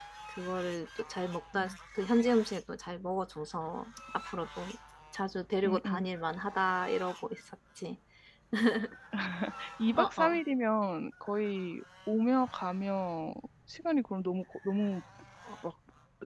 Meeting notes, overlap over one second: none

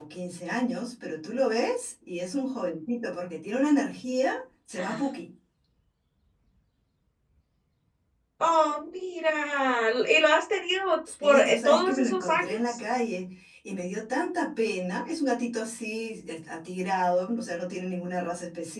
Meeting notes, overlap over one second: present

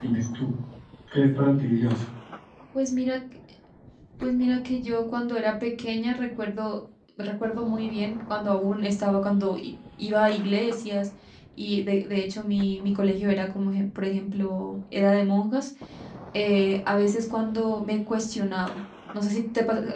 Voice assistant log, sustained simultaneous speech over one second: none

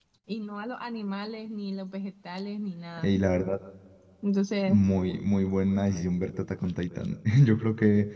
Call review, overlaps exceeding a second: none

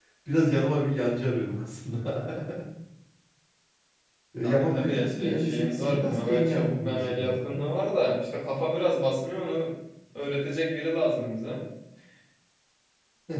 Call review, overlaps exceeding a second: present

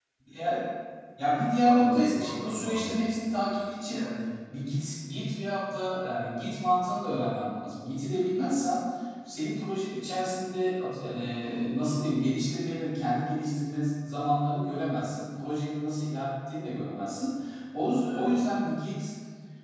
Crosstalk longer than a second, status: present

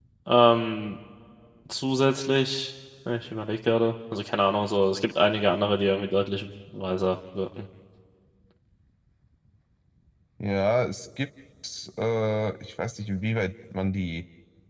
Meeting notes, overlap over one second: none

